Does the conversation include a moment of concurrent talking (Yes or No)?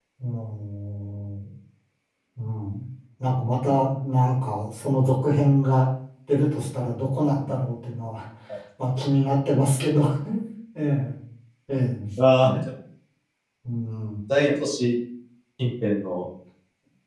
No